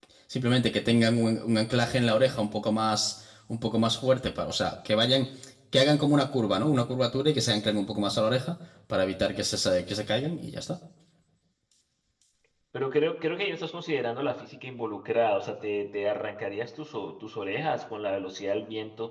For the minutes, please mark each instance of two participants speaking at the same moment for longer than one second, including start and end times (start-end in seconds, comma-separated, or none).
none